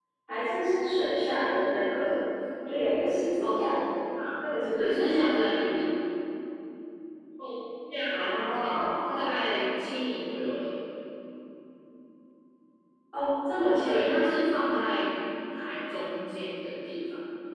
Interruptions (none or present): present